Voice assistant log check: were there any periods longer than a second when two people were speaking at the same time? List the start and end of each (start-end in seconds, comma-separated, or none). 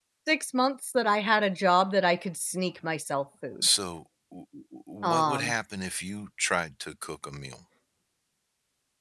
none